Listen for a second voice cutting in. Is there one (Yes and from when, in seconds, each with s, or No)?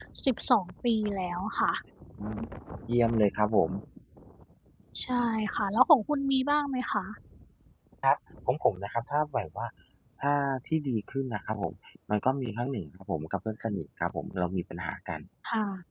No